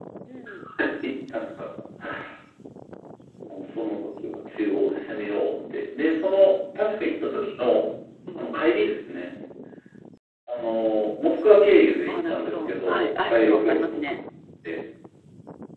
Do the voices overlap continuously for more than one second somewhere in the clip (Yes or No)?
Yes